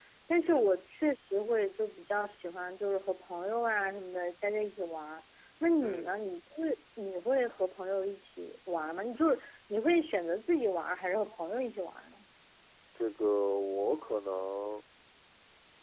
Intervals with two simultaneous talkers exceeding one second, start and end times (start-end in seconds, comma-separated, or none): none